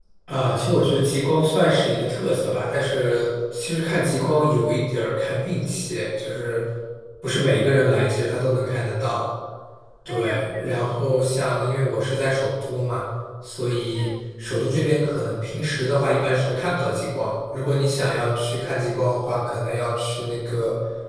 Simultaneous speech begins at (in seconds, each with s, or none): 10.1 s